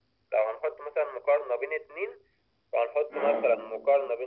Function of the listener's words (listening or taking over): listening